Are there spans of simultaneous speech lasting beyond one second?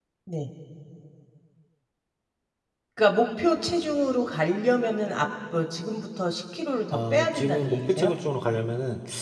Yes, from 6.9 s

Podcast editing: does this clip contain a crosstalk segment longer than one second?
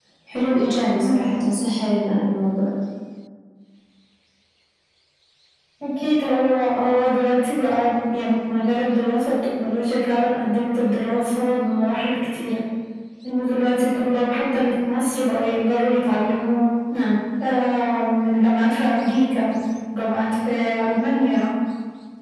No

